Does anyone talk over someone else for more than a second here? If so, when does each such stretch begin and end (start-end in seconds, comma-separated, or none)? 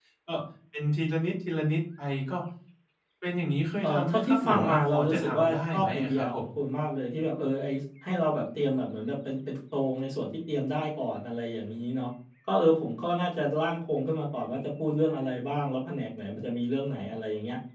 3.8-6.5